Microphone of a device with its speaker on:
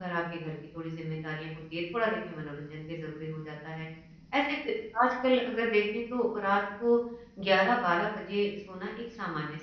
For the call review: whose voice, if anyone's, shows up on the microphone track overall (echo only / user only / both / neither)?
user only